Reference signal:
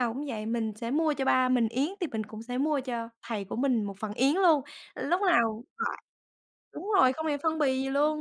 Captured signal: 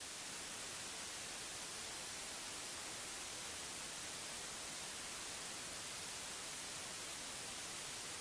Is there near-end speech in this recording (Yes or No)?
No